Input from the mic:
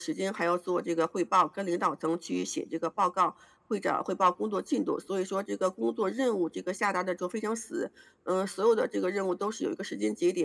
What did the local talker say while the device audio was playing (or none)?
none